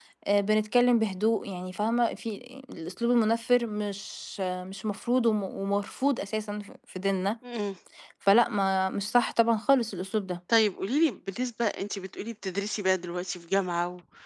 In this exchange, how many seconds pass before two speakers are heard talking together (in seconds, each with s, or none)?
none